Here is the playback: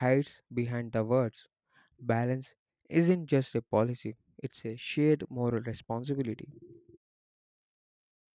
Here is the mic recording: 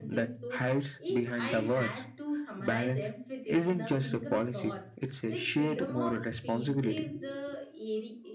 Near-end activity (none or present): present